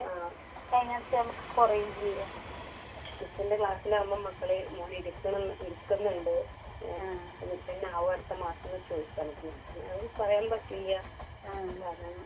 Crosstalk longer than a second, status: none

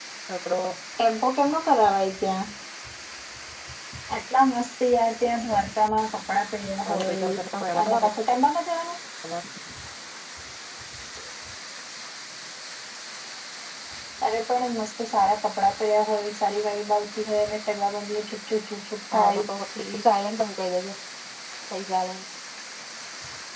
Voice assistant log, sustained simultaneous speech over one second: none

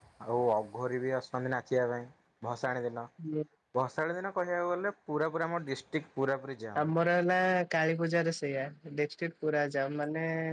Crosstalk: none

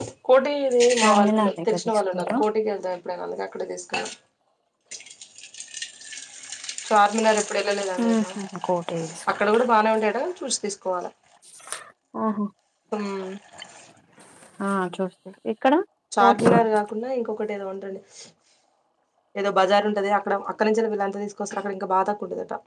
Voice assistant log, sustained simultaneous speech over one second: present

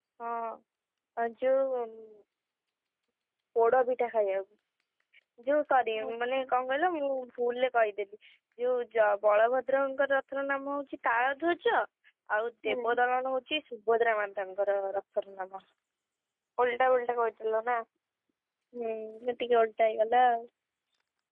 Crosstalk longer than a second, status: none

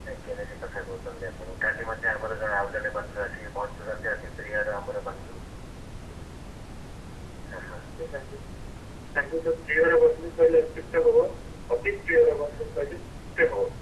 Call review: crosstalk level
none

